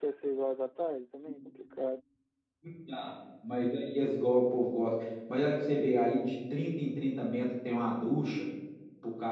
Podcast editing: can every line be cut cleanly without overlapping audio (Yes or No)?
Yes